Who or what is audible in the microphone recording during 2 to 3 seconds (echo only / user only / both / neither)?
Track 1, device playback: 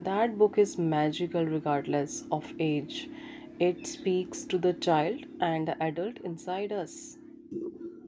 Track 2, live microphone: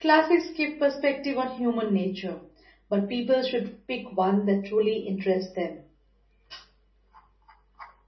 user only